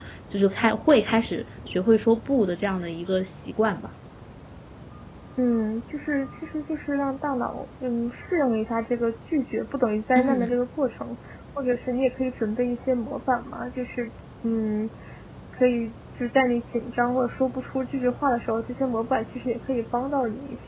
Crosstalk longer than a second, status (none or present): none